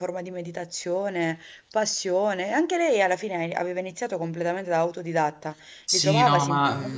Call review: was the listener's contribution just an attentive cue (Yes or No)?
No